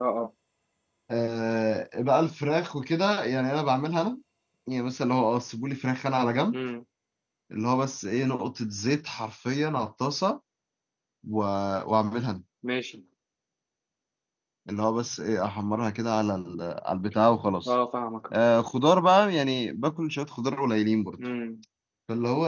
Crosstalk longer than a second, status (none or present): none